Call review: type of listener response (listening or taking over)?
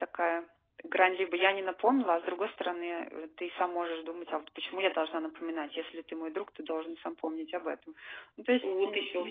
taking over